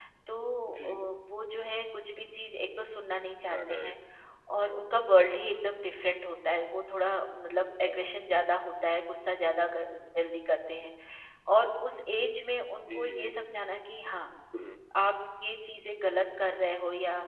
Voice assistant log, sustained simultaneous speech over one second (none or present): none